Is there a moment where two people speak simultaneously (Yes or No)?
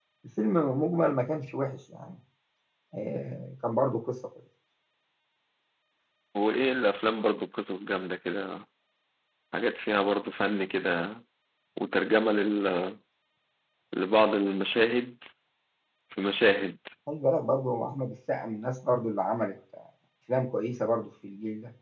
No